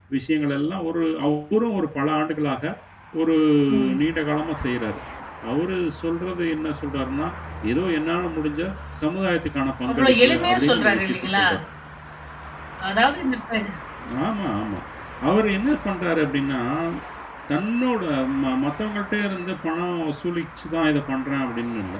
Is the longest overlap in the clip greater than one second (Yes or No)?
Yes